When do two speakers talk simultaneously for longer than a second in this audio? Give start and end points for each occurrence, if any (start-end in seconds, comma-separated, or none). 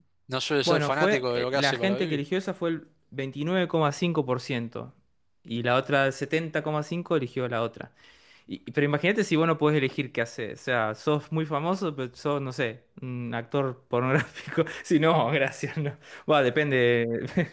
0.7-2.2